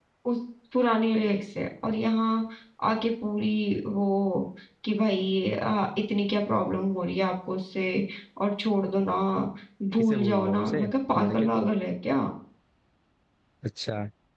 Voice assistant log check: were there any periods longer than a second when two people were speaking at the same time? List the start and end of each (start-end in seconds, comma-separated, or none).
10.0-11.7